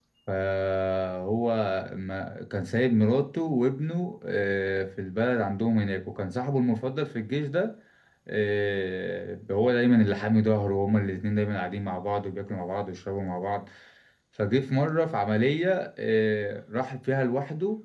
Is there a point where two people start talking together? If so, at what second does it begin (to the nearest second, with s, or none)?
none